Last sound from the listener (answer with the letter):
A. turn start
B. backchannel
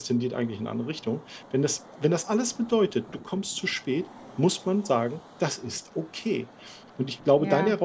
B